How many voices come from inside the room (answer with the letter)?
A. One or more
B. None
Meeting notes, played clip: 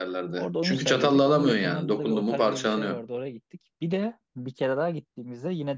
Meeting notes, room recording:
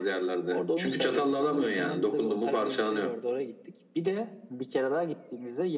B